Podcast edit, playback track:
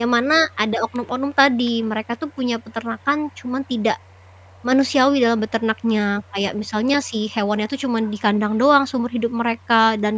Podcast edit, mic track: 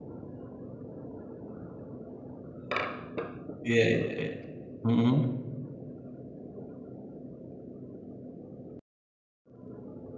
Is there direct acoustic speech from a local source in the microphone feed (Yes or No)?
Yes